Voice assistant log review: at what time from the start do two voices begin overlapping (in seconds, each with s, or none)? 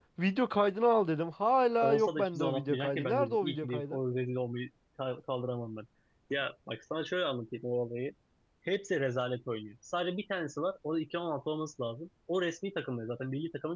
1.8 s